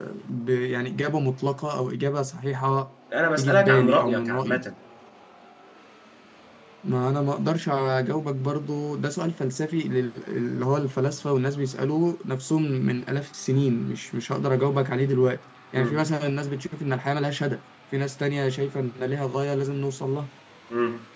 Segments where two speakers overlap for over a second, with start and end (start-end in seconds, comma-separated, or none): 3.4-4.6